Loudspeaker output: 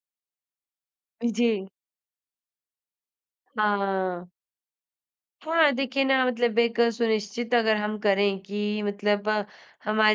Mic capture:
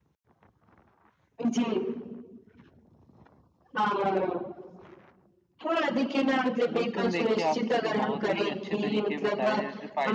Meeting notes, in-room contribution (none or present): present